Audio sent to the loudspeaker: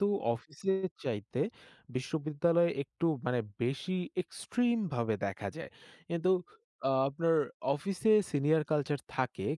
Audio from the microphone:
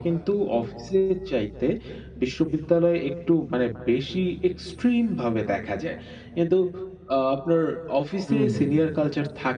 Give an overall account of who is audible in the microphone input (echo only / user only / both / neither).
both